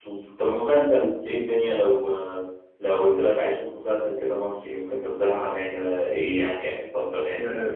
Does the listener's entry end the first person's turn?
Yes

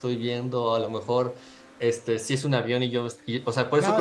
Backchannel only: No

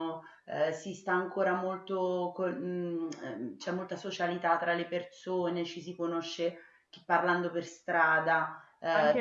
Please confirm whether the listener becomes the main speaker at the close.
Yes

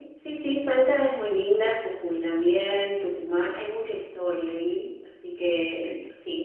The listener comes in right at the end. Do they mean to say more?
No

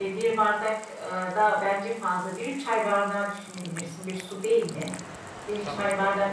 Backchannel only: Yes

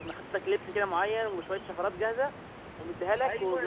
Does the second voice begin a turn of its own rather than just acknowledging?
Yes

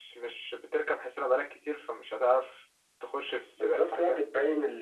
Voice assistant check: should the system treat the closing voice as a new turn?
Yes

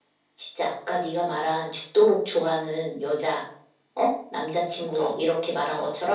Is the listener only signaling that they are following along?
Yes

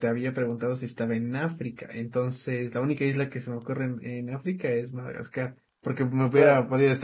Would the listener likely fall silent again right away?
Yes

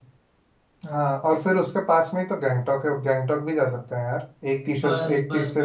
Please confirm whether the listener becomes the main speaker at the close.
Yes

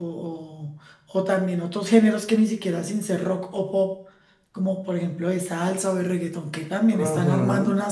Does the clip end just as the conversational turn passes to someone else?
Yes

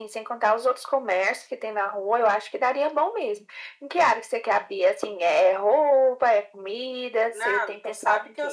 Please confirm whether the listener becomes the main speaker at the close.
Yes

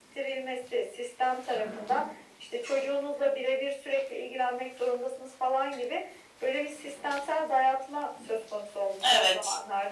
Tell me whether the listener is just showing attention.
Yes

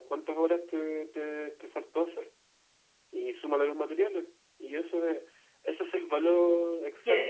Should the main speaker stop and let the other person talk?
Yes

